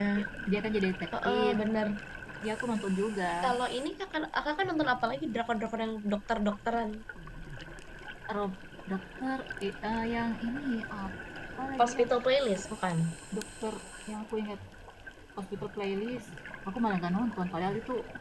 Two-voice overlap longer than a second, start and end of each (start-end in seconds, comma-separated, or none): none